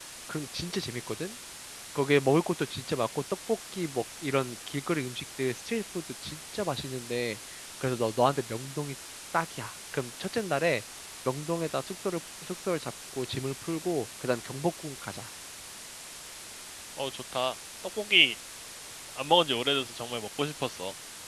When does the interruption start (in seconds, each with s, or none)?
none